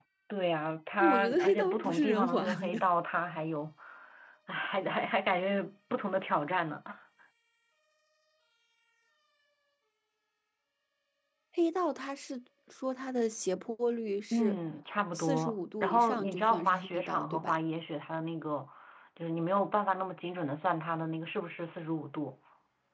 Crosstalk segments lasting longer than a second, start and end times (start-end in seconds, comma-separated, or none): 1.0-2.8, 15.1-17.6